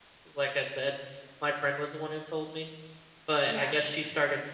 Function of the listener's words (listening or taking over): listening